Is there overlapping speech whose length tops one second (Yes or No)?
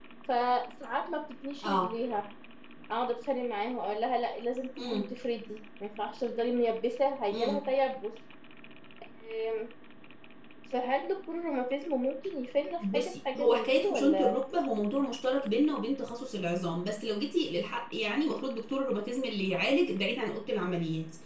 Yes